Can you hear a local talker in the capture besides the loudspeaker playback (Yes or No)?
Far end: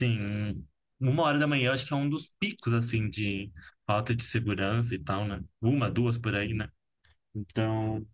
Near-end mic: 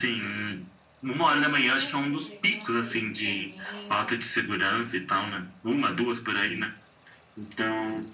Yes